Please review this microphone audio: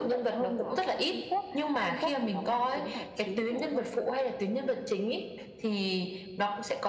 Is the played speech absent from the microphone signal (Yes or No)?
No